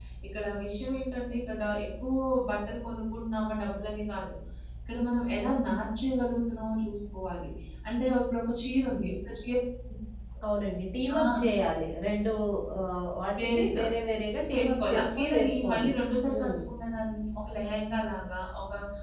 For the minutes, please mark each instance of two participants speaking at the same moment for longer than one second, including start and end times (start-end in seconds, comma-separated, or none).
14.5-15.9